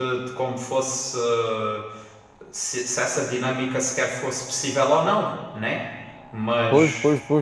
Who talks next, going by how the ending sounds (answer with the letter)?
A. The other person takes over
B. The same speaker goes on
A